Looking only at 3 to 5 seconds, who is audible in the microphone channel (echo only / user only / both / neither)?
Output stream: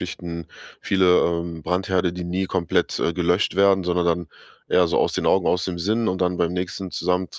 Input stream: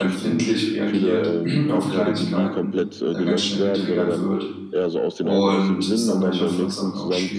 both